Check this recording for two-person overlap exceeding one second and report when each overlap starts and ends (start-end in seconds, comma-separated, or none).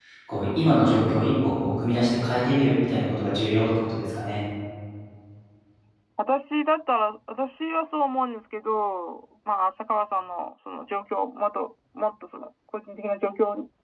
none